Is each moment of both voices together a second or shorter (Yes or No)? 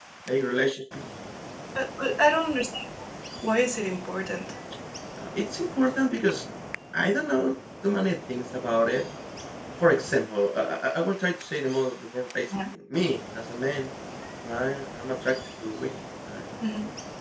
Yes